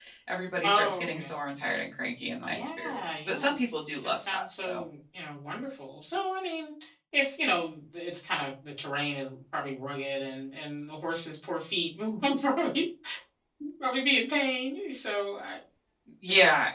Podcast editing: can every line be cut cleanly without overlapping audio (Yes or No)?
No